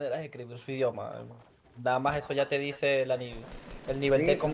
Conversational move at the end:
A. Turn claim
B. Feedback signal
A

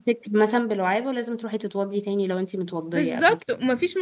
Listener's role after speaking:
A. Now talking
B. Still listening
A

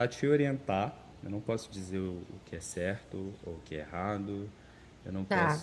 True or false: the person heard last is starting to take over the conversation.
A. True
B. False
B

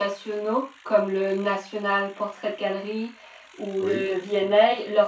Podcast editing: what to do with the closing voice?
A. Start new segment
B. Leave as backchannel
B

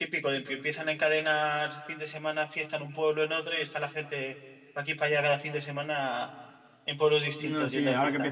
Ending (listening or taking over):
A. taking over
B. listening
A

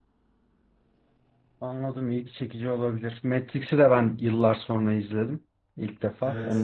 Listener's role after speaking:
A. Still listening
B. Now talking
B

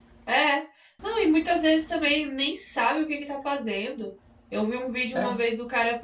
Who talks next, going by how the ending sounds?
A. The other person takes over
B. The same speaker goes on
B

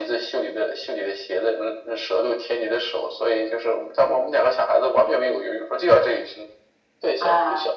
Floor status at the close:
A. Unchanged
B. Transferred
A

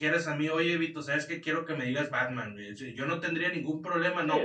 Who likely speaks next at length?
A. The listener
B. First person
B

